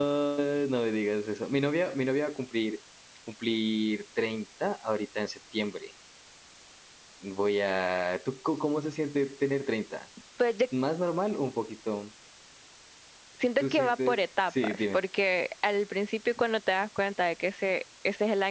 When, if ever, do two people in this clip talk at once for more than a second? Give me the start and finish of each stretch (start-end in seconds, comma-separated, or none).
13.6-15.0